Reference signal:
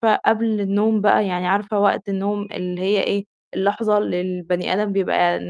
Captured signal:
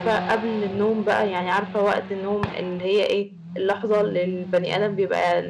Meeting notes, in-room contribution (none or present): none